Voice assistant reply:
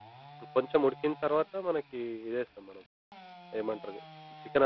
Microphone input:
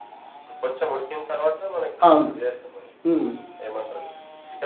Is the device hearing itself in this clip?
Yes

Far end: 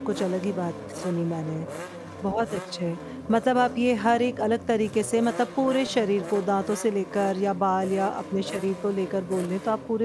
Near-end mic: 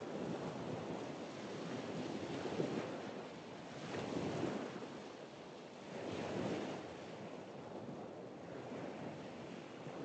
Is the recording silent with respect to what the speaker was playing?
Yes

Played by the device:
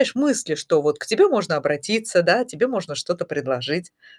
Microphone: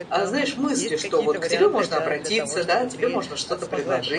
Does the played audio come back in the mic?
Yes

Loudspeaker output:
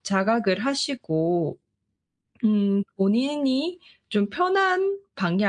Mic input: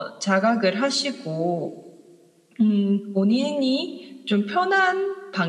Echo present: Yes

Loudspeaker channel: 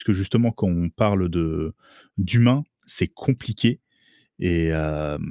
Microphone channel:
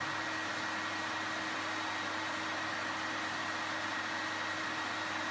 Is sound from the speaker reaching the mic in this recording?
No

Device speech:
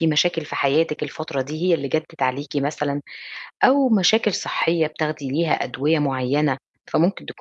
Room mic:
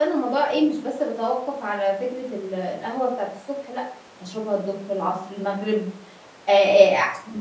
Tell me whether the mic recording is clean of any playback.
Yes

